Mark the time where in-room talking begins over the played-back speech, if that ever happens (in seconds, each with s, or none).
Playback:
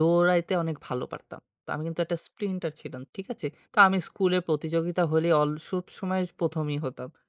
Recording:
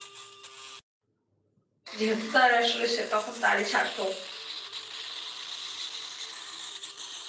2.0 s